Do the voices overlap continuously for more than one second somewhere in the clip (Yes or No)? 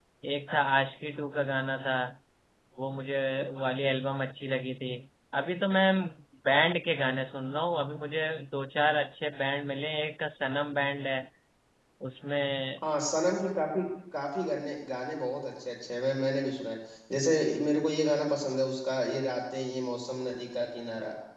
No